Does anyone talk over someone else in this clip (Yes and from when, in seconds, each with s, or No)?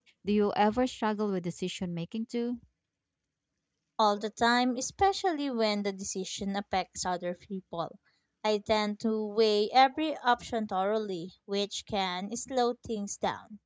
No